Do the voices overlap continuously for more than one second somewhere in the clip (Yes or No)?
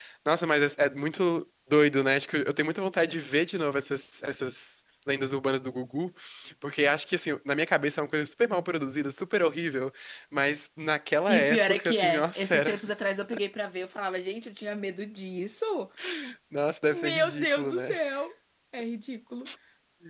Yes